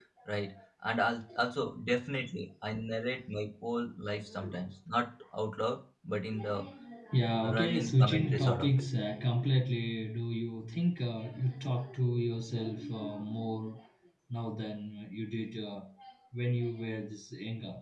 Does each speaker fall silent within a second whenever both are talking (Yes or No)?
No